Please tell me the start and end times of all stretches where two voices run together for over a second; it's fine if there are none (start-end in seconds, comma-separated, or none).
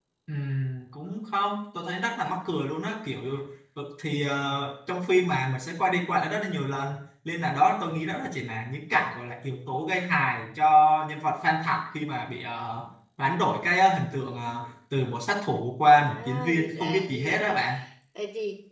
16.0-17.6